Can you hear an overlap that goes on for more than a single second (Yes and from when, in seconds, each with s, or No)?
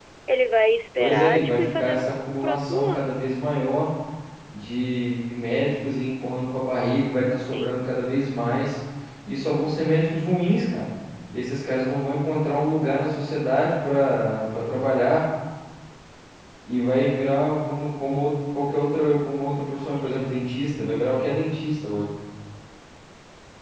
Yes, from 1.0 s